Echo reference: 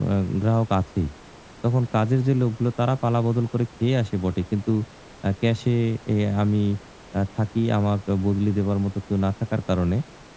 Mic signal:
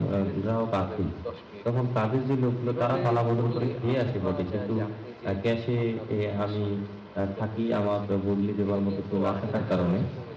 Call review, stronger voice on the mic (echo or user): echo